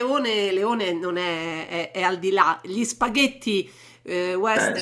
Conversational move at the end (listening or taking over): listening